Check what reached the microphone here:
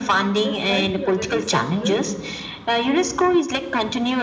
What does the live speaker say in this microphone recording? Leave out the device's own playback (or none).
this site is a very central